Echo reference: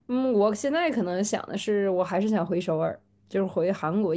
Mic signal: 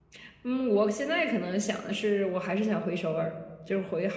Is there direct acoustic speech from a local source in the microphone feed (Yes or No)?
No